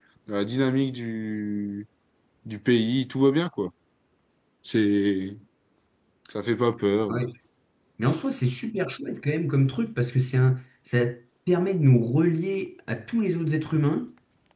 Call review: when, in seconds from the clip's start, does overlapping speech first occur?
none

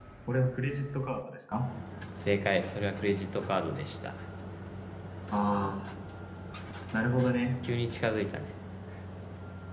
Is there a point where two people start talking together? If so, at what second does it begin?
none

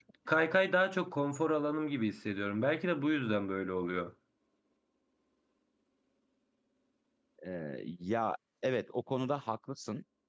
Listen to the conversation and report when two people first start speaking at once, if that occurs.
none

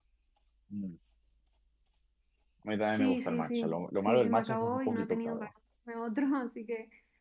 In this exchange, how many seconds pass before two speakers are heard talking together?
2.9 s

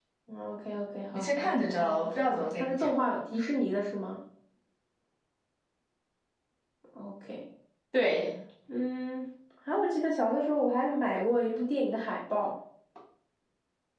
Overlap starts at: 1.1 s

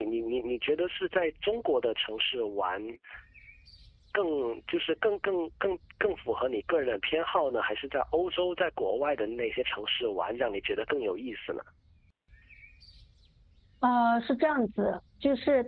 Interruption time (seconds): none

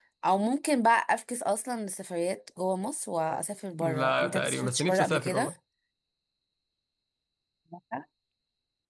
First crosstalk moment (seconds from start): 3.8 s

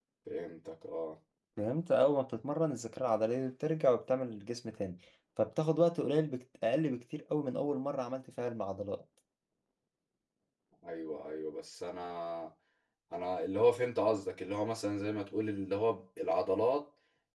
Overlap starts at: none

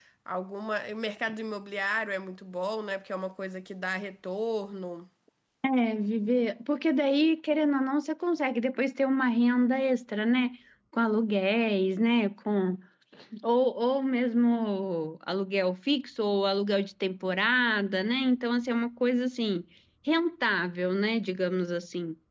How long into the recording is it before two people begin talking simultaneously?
none

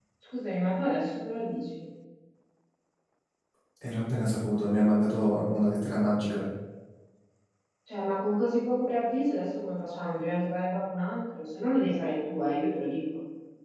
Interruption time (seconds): none

